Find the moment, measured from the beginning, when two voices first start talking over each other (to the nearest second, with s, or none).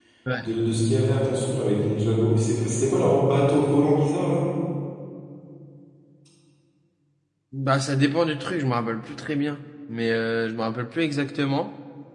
none